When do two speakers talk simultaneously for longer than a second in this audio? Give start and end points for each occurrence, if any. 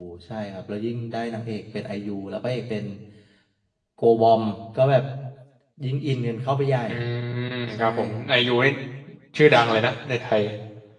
none

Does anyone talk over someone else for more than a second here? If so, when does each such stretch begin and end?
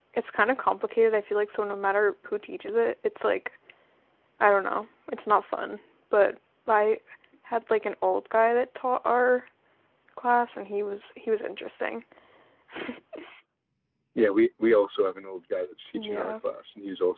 none

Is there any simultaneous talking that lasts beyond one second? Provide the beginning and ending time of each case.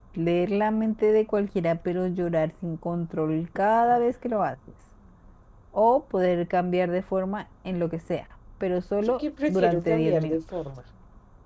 9.1-10.4

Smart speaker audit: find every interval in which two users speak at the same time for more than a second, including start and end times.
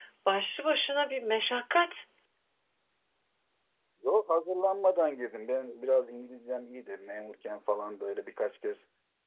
none

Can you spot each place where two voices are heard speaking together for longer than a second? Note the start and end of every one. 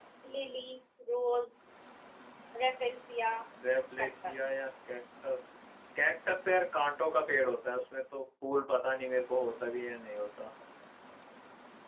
none

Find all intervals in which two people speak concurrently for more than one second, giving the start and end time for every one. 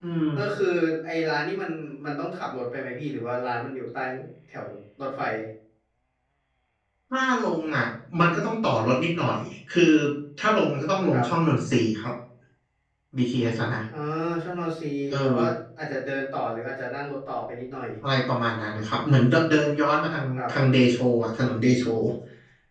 none

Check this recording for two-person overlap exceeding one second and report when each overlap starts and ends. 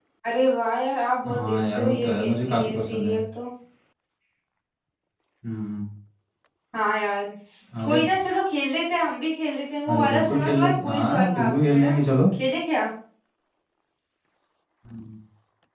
1.2-3.2, 9.9-11.9

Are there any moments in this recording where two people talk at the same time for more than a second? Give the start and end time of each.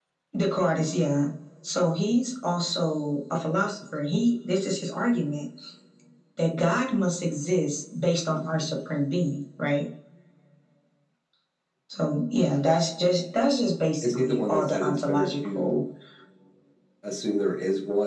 14.0-15.7

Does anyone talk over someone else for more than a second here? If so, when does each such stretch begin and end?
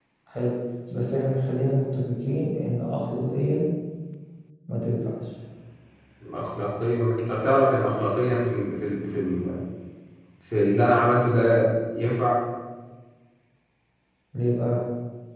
none

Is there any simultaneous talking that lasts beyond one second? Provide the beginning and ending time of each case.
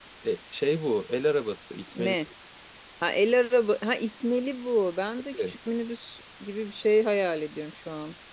none

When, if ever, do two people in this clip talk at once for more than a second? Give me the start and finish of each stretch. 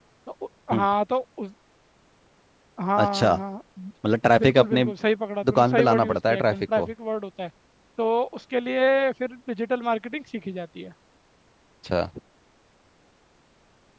5.4-6.9

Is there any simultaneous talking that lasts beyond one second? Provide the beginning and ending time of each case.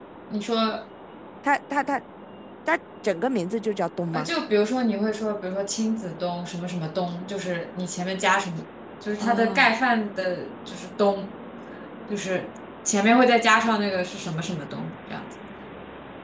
none

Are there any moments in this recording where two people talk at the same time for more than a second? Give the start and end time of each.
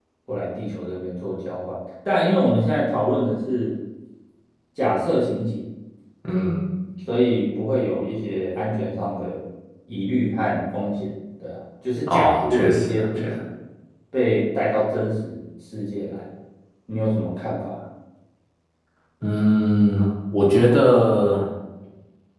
12.1-13.3

